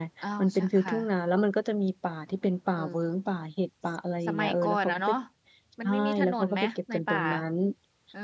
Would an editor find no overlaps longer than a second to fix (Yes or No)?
No